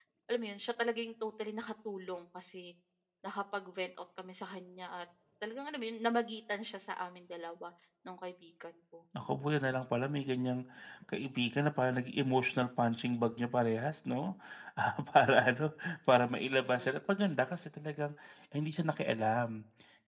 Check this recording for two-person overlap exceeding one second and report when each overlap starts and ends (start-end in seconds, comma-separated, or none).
none